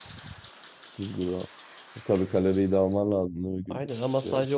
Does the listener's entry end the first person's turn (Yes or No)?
Yes